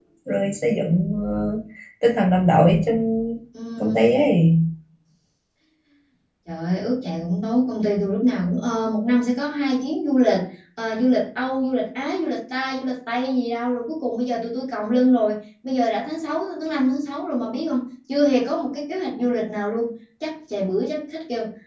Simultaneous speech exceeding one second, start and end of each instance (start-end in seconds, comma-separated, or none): none